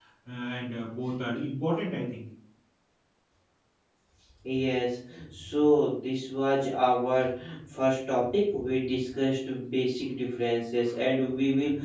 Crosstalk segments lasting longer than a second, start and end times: none

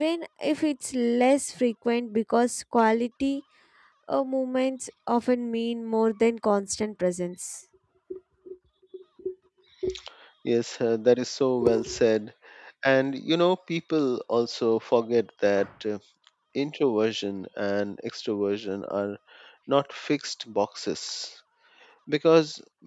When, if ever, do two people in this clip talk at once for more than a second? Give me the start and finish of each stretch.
none

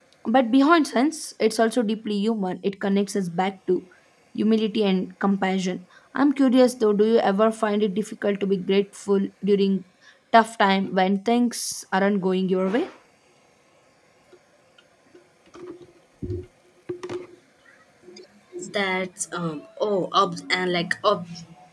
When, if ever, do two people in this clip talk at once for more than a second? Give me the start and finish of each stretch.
none

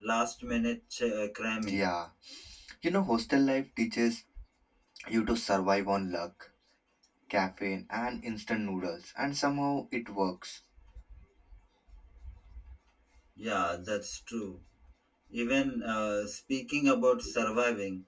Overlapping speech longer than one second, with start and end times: none

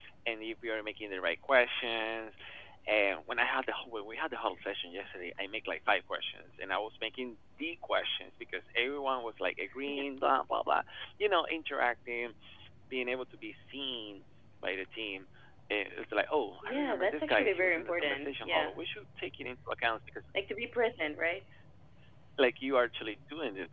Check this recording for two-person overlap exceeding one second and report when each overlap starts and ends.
16.6-18.8

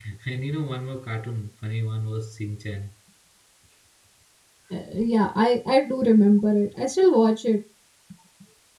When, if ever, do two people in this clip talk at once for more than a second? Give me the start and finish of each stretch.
none

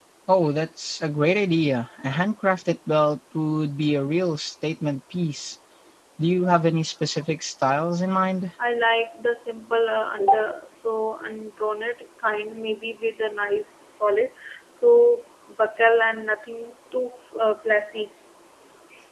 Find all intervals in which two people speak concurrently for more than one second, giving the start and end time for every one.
none

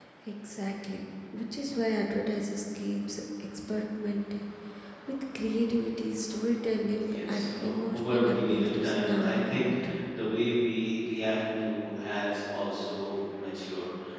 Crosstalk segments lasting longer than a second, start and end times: 7.1-9.9

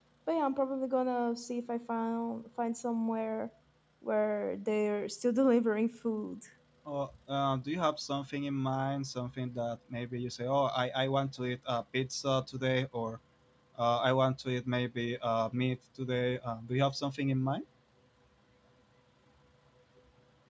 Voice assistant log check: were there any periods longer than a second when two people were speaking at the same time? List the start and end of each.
none

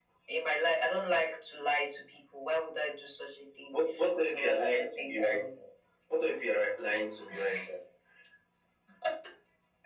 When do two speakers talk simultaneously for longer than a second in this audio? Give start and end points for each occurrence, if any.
4.2-5.4

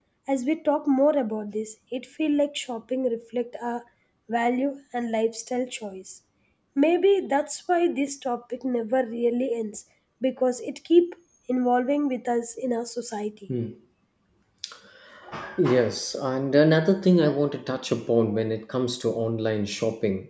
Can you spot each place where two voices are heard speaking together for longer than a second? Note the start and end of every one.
none

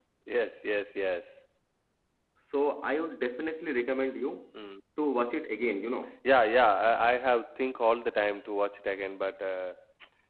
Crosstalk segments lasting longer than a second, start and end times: none

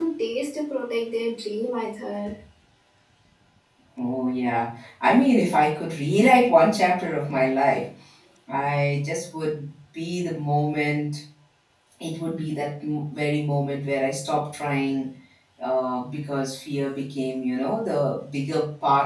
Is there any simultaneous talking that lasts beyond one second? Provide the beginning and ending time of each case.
none

